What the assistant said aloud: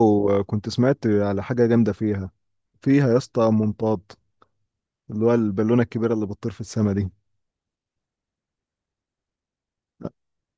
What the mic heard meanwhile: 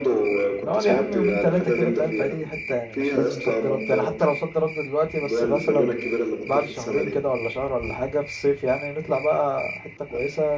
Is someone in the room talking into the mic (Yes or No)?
Yes